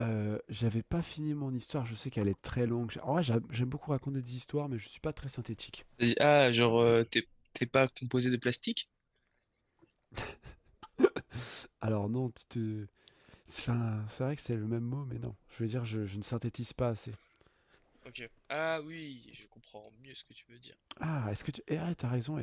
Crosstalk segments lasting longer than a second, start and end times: none

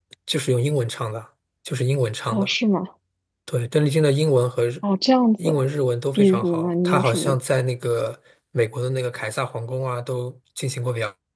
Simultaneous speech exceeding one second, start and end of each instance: 6.1-7.3

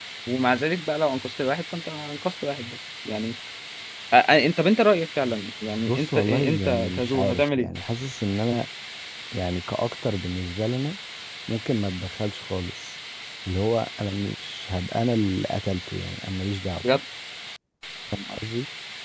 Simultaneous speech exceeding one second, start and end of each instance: 5.8-7.7

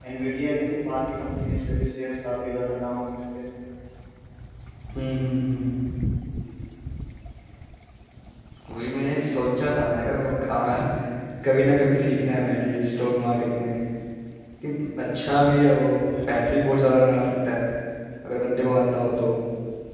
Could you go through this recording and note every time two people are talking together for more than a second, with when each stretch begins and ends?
none

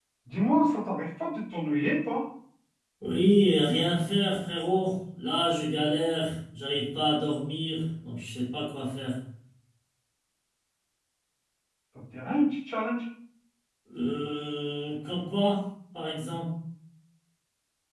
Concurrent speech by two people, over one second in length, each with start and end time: none

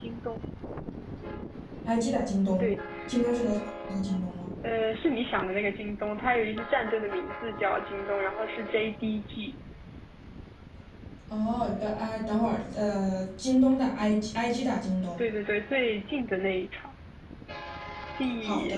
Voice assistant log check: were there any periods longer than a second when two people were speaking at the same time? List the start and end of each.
none

